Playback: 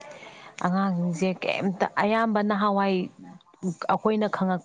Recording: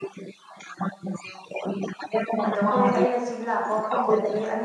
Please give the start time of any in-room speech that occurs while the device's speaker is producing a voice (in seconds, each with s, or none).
2.5 s